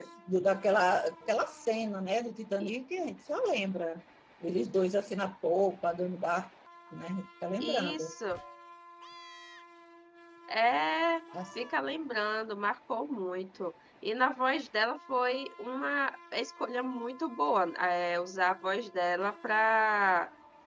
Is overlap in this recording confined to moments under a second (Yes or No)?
Yes